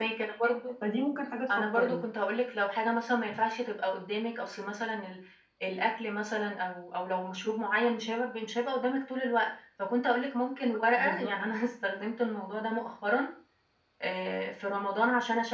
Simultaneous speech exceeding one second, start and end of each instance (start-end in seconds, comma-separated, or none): none